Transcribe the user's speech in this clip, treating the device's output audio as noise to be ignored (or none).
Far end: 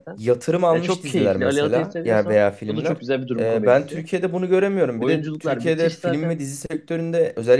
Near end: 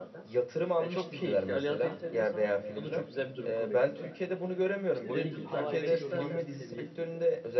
işte dediğim gibi How I Met Your Mother seviyesinde